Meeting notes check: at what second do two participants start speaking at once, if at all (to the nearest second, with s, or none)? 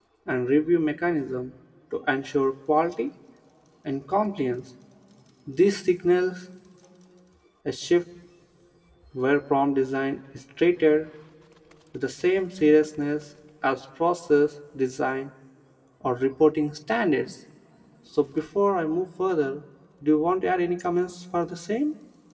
none